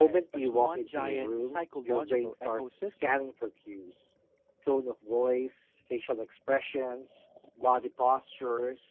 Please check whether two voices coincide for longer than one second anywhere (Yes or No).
Yes